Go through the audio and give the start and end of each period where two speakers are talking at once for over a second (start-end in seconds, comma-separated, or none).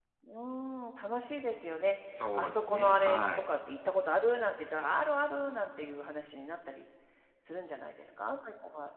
2.2-3.4